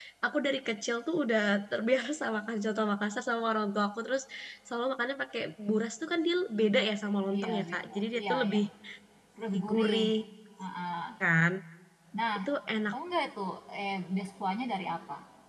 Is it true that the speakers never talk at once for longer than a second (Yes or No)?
No